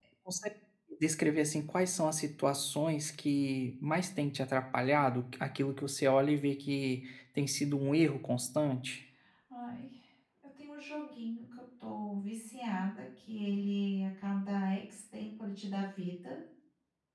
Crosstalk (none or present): none